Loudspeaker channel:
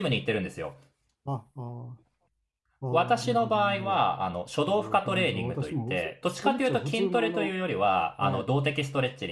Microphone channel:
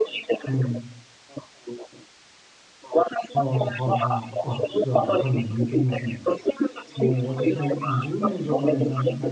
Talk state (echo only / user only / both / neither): both